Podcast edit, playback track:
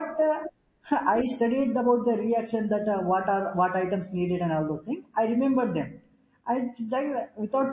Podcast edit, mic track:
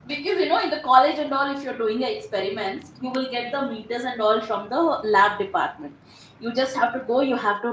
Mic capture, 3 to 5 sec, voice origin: user only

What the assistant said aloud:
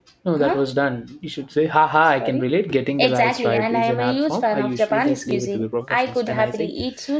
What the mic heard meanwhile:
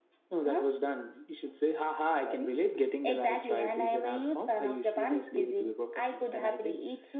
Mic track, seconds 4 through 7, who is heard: echo only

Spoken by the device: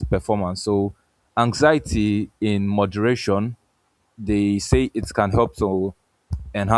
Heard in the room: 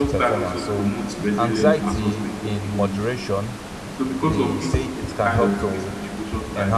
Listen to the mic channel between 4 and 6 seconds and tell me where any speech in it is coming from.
both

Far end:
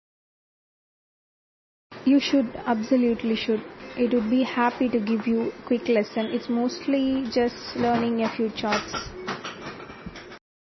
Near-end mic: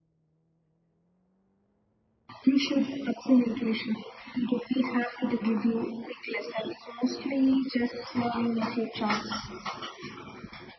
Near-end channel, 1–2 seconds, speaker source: neither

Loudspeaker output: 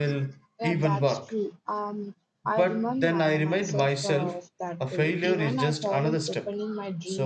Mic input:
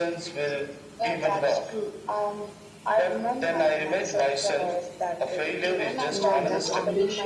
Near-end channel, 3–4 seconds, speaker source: echo only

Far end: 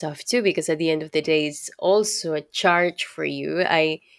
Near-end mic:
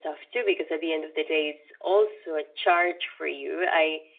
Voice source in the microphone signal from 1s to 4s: echo only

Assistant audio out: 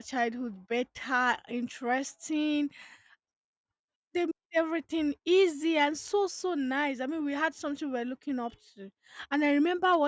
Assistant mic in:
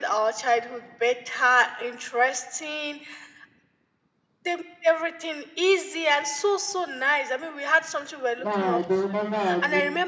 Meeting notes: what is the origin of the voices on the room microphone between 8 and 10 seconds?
both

